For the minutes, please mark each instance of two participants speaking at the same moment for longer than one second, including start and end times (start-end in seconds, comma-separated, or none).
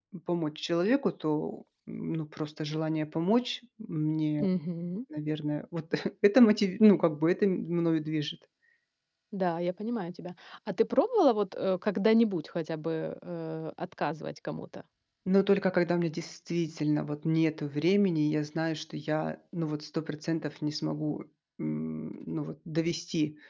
none